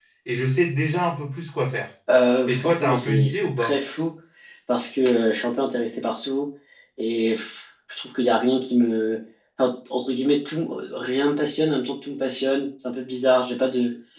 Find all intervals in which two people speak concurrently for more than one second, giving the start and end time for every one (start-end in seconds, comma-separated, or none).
2.5-3.7